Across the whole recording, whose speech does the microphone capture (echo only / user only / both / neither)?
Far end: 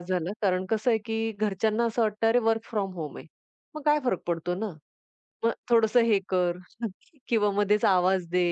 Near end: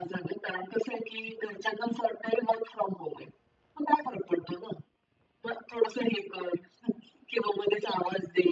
echo only